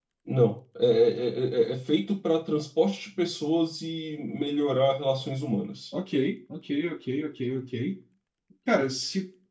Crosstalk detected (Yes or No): No